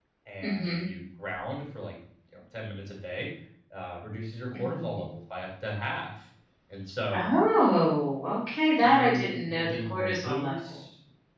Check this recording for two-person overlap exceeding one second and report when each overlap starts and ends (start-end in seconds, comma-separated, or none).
8.8-10.8